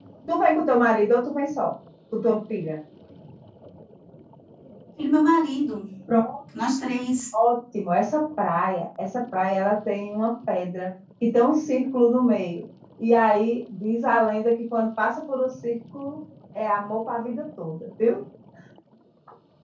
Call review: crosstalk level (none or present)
none